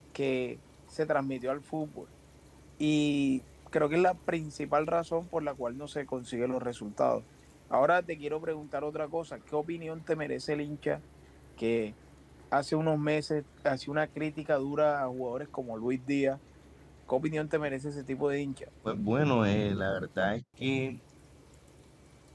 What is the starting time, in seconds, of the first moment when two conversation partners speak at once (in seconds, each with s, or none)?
none